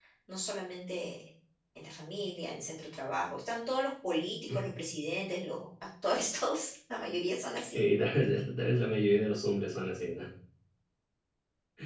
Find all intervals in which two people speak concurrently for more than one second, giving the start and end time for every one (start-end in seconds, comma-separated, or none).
none